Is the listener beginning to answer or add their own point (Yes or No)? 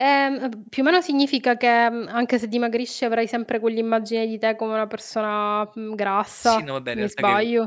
Yes